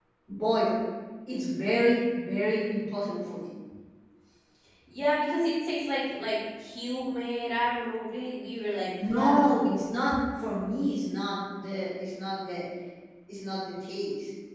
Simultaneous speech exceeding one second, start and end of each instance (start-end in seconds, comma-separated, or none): none